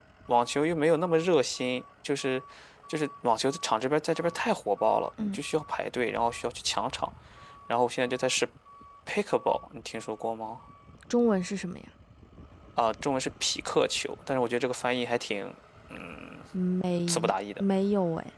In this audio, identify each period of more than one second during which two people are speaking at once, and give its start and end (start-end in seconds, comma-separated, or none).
none